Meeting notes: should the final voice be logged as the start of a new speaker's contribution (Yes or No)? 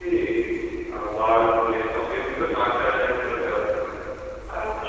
Yes